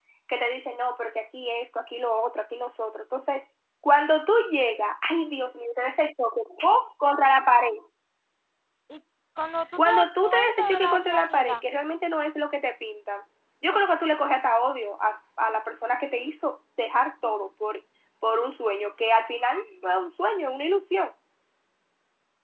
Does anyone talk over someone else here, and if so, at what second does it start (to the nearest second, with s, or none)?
10 s